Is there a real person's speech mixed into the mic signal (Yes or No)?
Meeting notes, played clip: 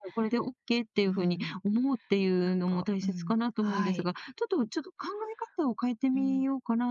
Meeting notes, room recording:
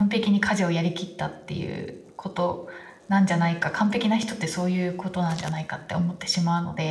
Yes